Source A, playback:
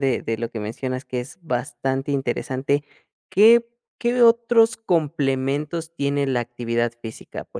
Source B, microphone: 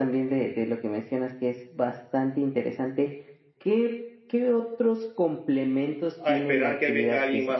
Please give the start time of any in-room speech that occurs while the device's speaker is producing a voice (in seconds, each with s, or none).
6.2 s